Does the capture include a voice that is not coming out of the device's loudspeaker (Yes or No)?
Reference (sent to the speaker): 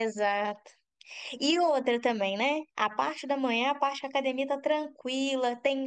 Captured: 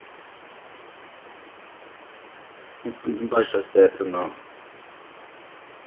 Yes